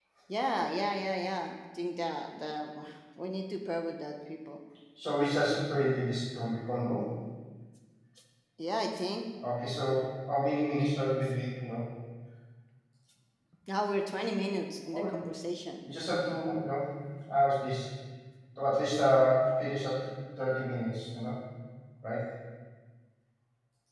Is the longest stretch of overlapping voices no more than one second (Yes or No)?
Yes